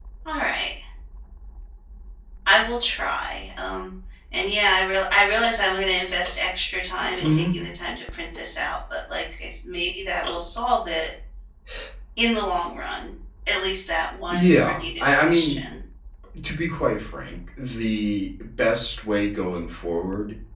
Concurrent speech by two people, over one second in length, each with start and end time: 14.3-15.6

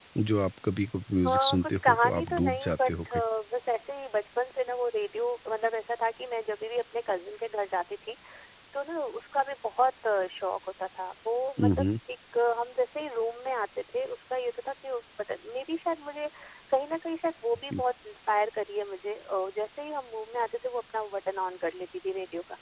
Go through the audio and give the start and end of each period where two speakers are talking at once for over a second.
1.3-3.2

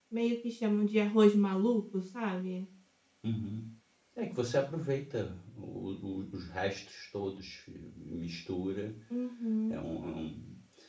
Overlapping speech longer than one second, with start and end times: none

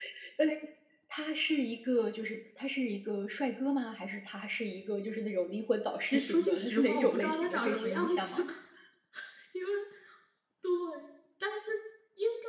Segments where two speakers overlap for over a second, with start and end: 6.1-8.4

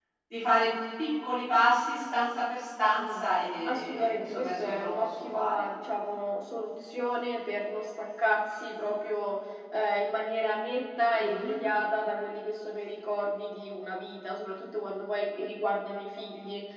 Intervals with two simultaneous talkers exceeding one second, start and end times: 3.6-5.6

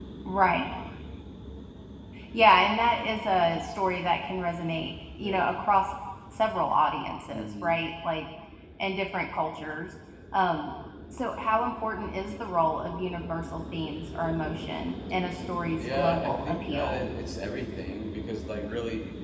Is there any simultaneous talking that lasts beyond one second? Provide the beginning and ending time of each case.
15.8-17.1

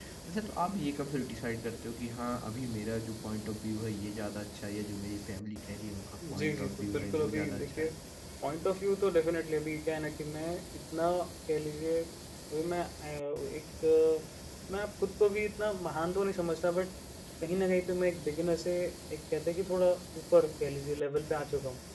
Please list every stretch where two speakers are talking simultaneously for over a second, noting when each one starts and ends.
6.3-7.9

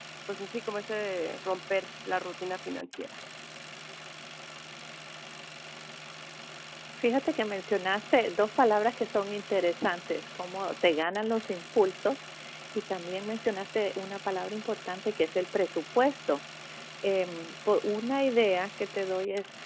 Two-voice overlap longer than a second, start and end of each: none

